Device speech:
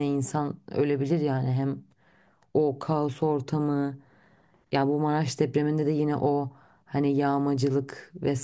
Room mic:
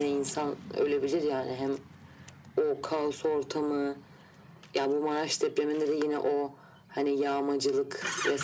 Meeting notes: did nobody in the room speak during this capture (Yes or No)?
Yes